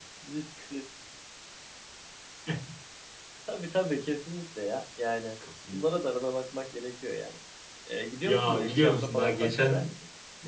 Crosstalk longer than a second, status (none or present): present